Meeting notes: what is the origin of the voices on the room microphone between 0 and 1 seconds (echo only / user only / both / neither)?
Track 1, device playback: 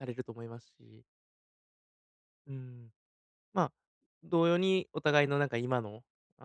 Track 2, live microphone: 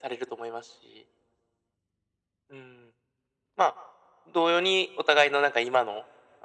echo only